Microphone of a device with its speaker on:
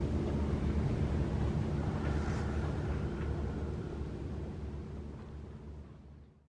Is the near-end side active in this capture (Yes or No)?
No